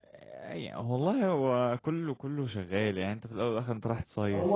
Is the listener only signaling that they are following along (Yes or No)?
No